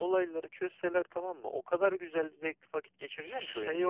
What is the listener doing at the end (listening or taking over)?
taking over